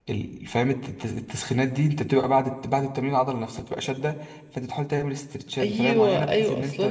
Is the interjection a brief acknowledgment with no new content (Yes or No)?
No